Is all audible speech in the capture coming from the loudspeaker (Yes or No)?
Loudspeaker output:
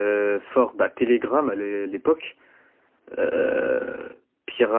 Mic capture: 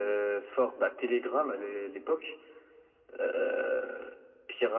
Yes